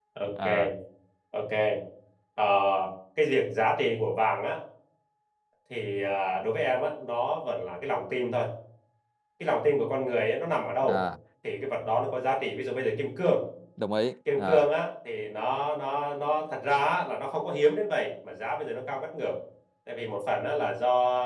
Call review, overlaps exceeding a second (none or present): none